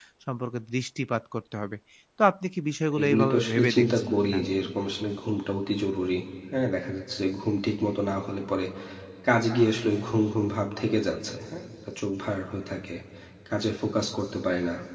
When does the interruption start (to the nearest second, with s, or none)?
3 s